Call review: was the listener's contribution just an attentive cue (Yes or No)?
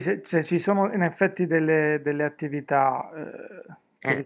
Yes